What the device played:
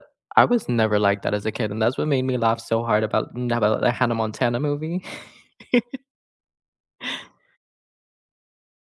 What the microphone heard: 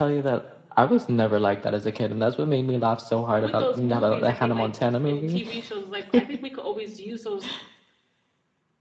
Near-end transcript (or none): with those movies, I think like, in TV shows, like, I think we could always use those